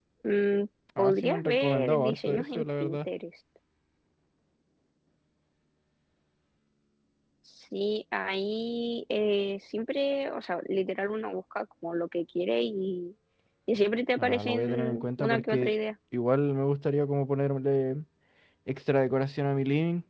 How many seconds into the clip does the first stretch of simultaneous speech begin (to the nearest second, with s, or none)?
1 s